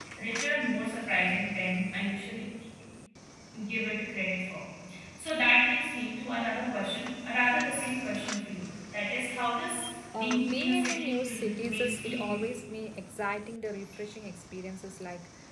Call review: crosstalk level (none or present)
present